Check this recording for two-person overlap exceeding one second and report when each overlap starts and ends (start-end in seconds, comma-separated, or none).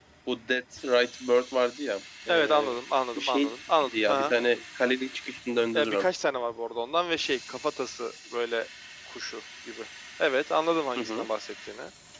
none